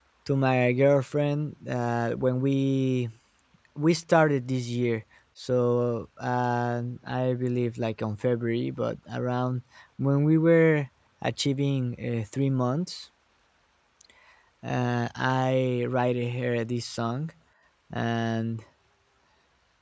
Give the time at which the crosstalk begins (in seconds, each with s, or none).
none